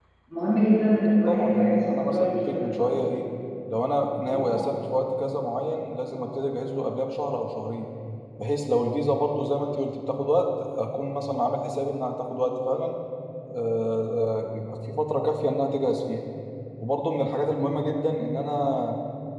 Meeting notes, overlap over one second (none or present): present